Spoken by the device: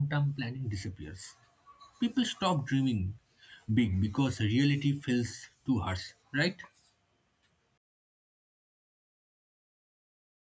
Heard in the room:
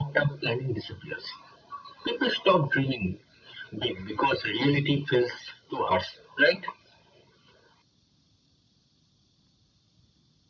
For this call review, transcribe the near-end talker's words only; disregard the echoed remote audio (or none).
none